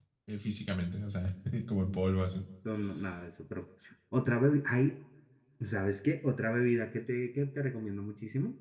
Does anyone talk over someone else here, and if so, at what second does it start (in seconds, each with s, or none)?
none